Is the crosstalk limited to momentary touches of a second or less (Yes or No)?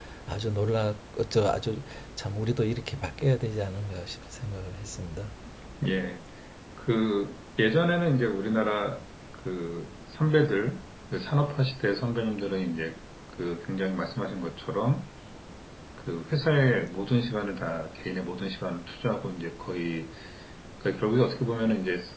Yes